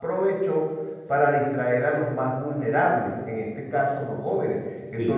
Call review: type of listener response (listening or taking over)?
listening